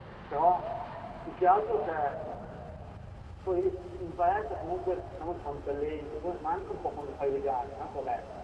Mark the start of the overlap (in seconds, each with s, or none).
none